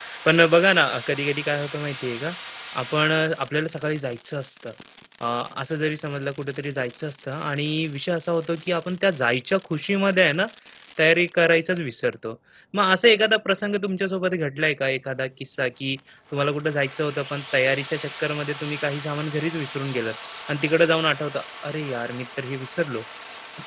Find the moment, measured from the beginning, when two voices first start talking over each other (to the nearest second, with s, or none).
none